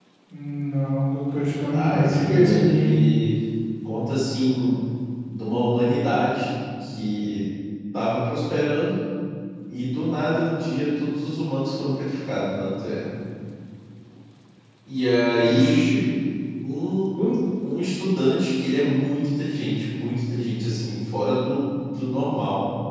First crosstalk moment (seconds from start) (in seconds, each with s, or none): 1.7 s